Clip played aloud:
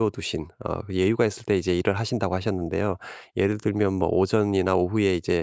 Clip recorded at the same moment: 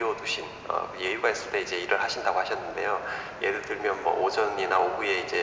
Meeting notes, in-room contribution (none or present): none